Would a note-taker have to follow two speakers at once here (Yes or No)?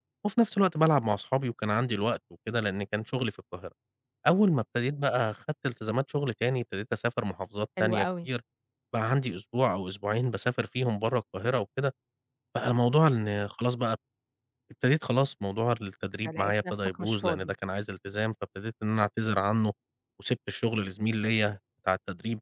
Yes